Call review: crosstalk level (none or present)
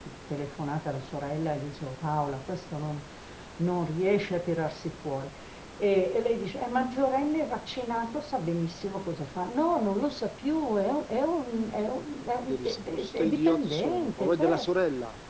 present